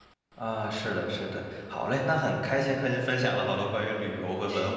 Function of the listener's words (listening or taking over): listening